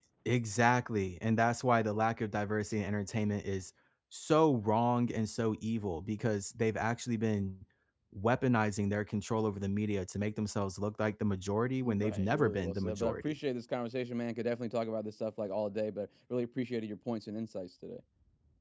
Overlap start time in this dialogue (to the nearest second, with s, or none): 12 s